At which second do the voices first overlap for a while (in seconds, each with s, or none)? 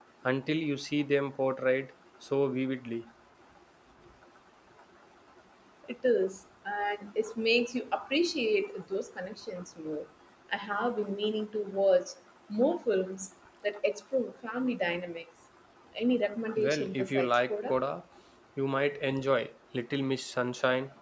16.6 s